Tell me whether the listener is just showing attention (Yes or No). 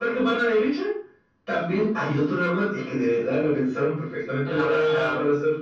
Yes